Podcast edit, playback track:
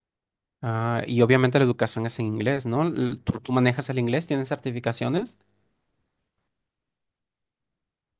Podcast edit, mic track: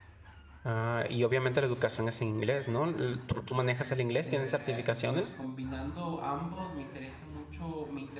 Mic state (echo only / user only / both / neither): both